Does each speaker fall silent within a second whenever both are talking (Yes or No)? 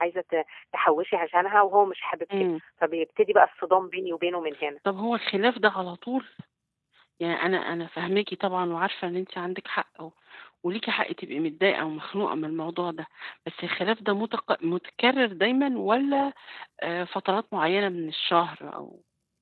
Yes